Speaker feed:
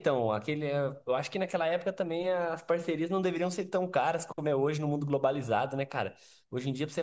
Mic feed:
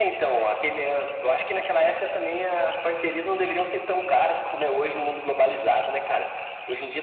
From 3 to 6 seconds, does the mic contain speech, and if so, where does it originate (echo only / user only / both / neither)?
echo only